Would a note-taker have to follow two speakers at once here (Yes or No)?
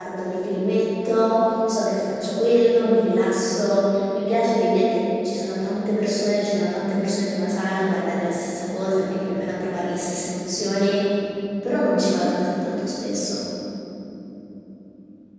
No